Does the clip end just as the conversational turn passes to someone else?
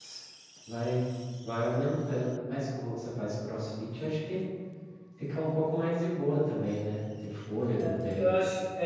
Yes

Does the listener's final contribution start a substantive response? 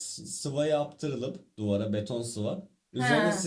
No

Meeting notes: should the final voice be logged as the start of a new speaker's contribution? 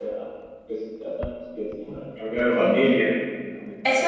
Yes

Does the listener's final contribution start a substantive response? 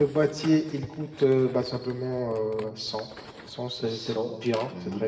Yes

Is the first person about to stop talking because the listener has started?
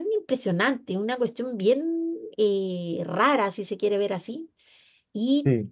No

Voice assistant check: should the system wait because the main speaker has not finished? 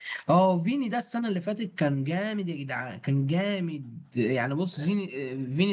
Yes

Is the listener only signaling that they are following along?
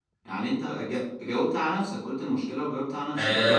No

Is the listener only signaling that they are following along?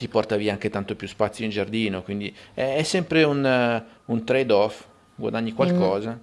No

